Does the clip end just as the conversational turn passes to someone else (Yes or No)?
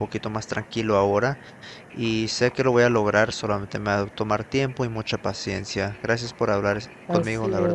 Yes